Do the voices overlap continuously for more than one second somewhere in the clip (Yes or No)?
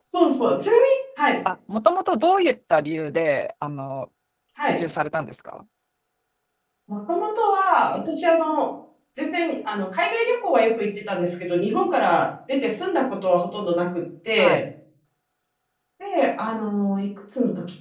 No